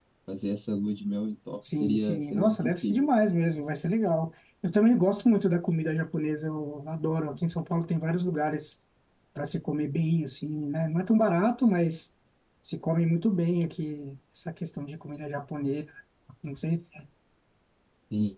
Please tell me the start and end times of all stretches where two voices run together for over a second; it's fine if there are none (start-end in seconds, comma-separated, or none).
1.8-3.1